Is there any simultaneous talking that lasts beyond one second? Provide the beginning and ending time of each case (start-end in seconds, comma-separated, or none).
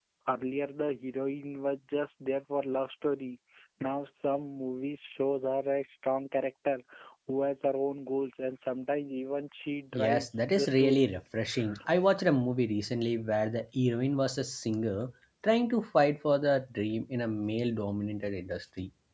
9.9-11.1